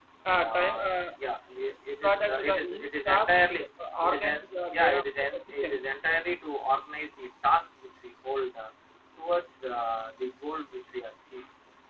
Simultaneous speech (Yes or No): Yes